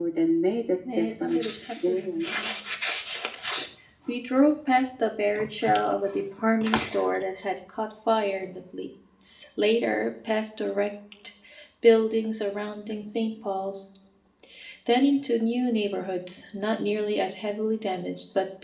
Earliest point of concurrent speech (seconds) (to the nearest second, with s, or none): 1 s